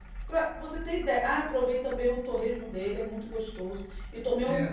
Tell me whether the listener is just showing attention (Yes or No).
Yes